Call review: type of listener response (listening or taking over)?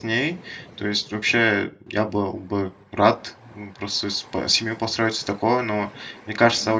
listening